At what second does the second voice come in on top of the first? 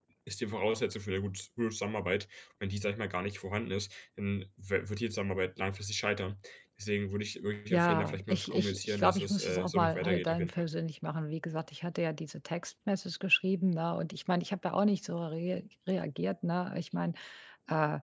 7.7 s

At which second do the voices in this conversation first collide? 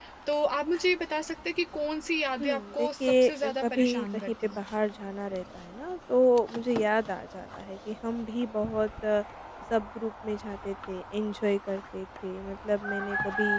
2.4 s

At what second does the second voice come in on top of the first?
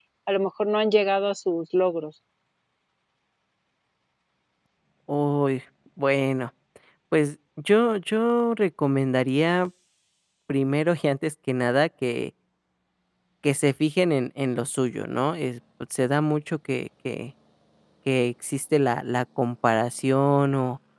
none

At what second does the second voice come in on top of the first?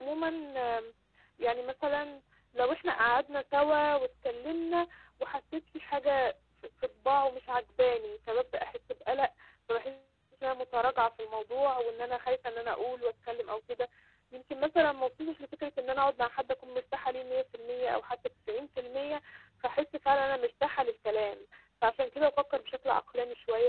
none

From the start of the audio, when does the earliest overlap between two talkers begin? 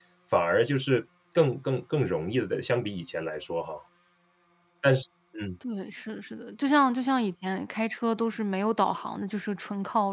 none

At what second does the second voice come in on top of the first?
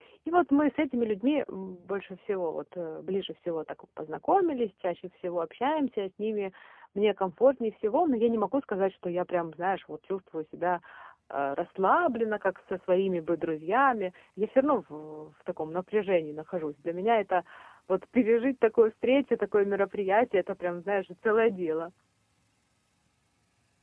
none

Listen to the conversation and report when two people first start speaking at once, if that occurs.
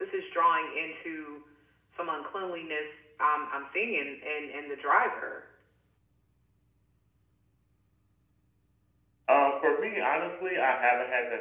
none

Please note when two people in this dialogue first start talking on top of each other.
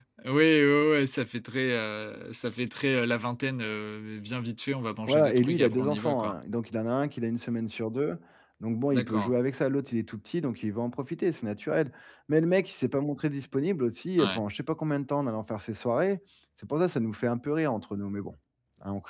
5.1 s

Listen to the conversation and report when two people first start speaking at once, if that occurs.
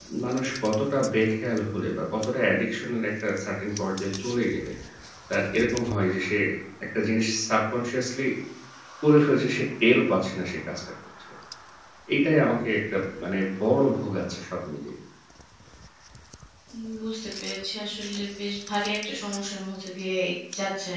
none

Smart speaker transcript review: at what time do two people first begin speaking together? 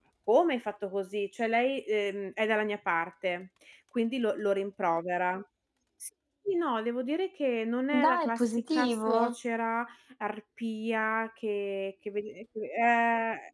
7.9 s

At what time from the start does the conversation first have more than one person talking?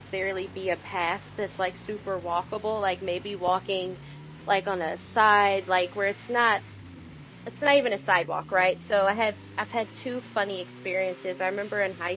none

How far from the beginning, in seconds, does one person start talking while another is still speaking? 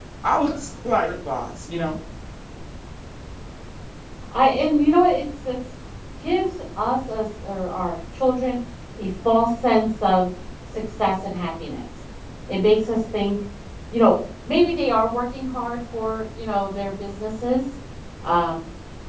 none

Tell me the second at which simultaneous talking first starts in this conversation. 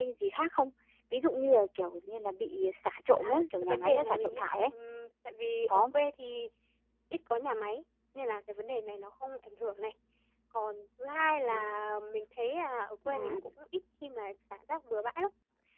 3.1 s

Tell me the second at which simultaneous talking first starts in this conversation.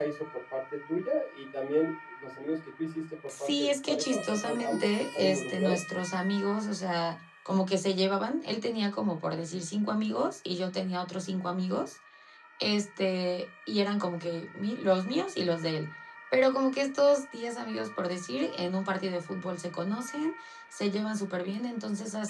3.3 s

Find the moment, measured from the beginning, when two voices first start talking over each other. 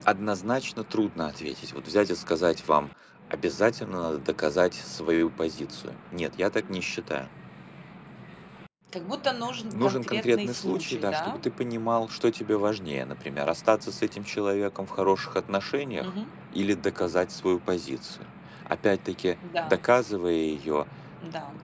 9.7 s

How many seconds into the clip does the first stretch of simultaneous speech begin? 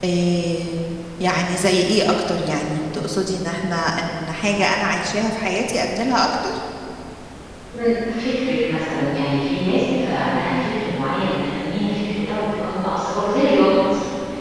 none

